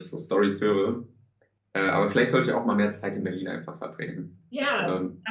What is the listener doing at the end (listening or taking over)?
taking over